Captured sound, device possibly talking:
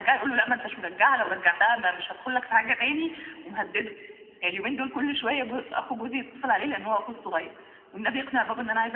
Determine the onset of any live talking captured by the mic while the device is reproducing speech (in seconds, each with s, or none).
none